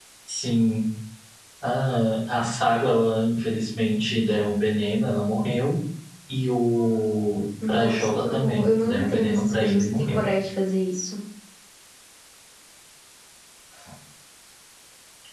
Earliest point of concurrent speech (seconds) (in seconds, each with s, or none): 7.6 s